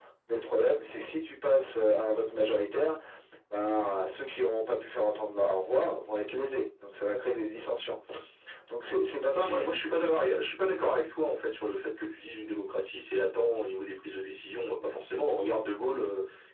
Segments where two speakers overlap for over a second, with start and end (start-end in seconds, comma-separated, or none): none